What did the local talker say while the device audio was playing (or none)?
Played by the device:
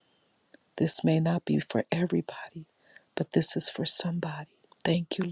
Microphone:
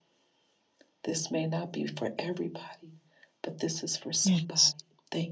Yes.